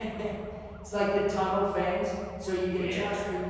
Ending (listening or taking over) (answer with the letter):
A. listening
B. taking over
A